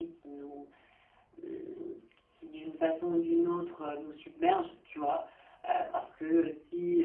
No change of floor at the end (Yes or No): Yes